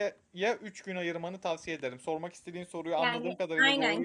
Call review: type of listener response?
taking over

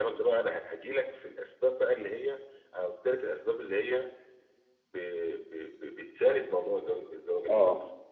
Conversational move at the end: listening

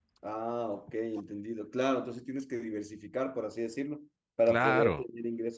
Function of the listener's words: listening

